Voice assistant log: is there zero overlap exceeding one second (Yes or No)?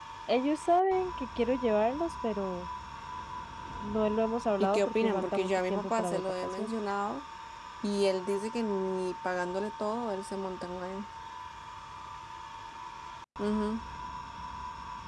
No